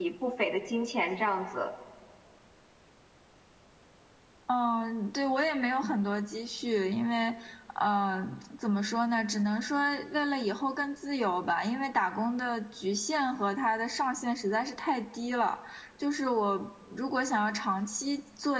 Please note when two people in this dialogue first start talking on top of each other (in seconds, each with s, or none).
none